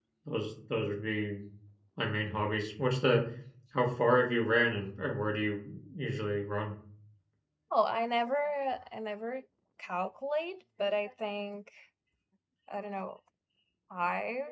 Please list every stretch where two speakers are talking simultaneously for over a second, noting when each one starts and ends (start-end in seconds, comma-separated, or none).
none